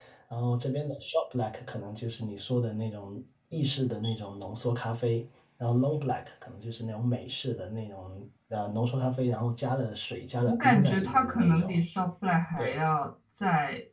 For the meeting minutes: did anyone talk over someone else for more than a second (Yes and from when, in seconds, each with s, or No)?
Yes, from 10.5 s